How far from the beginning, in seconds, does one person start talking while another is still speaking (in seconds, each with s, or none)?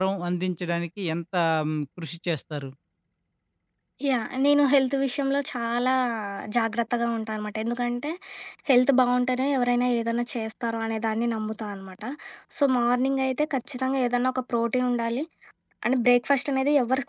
none